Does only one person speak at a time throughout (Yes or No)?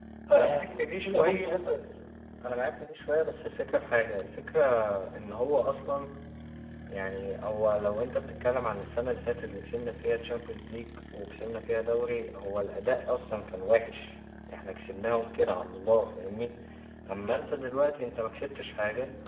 No